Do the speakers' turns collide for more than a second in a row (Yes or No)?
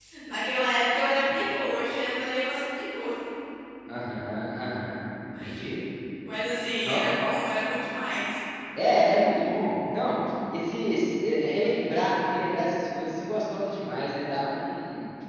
No